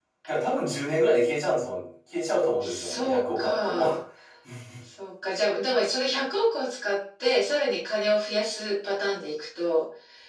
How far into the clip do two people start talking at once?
3 s

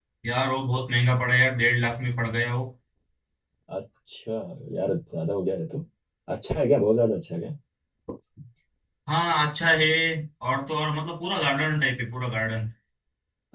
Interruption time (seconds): none

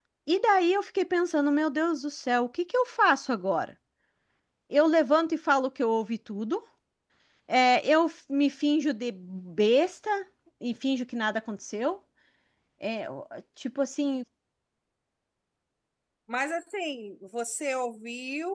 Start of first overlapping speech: none

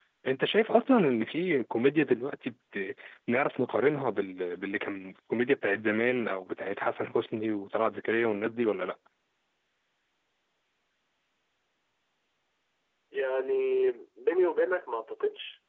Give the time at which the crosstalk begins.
none

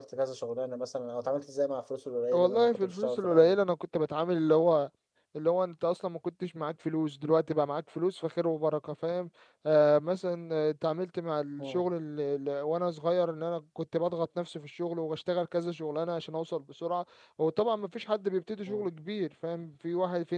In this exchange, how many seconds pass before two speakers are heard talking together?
2 s

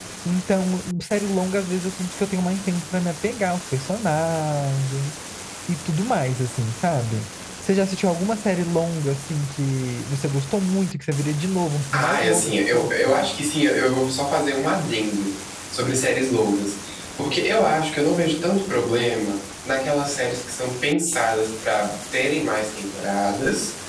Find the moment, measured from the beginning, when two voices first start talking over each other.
12 s

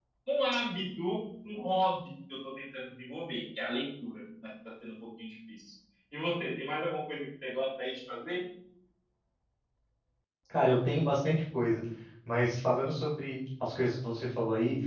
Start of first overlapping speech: none

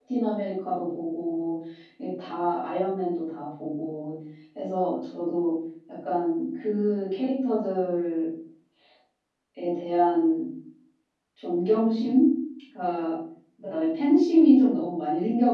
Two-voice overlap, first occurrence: none

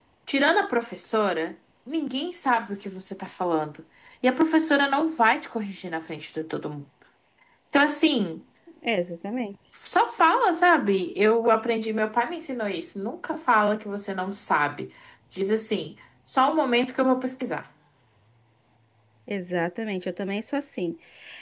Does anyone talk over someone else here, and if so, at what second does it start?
none

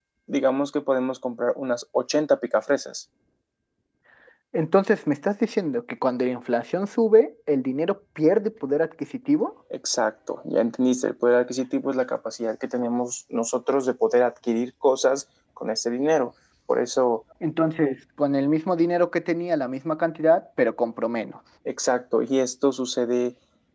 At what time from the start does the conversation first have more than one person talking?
none

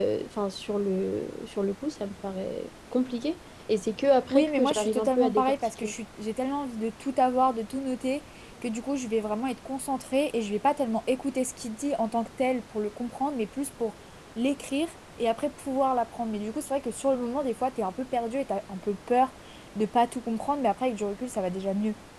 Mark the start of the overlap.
4 s

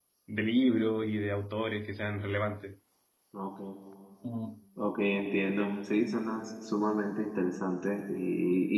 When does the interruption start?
none

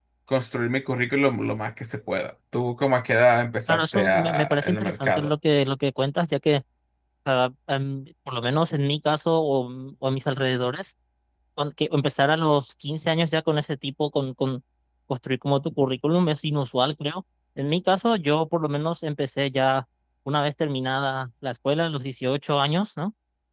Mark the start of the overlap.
4 s

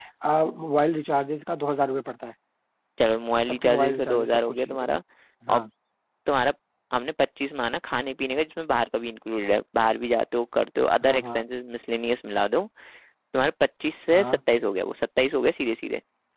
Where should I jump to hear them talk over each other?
3 s

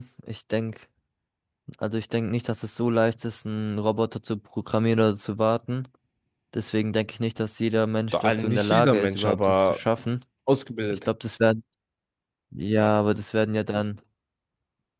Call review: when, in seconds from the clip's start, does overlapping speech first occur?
8 s

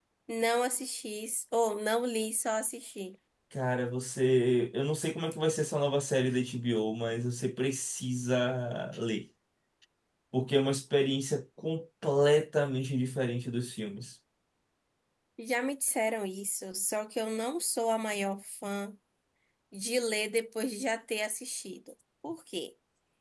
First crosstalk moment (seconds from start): none

